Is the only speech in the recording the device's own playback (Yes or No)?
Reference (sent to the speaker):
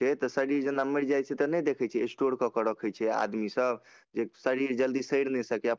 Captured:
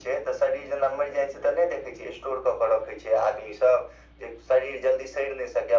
Yes